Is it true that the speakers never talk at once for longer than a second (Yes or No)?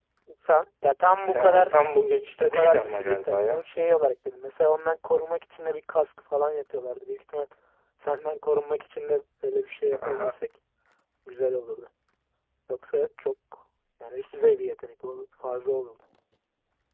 No